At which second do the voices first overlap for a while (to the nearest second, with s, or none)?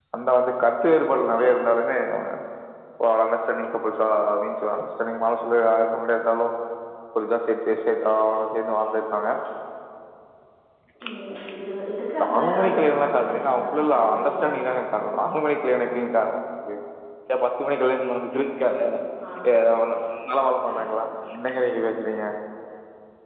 12 s